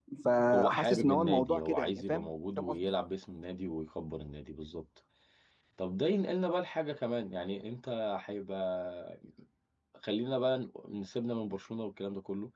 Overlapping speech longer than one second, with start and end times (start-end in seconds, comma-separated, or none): 0.5-2.9